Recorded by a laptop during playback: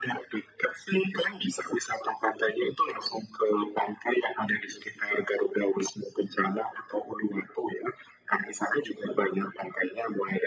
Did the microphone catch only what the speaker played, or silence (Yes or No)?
Yes